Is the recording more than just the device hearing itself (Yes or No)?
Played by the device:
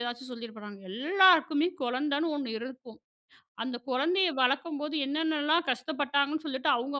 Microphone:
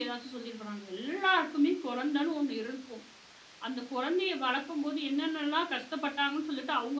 No